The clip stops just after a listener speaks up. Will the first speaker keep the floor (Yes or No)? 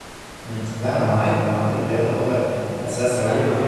Yes